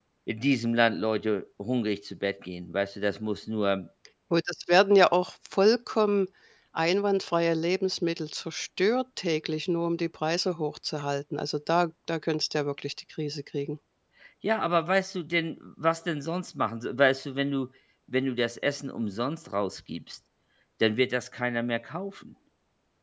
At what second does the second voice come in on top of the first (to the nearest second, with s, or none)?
none